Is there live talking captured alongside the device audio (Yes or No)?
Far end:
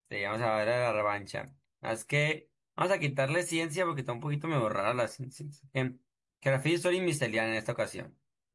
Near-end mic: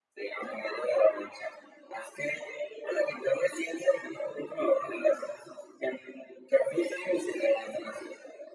No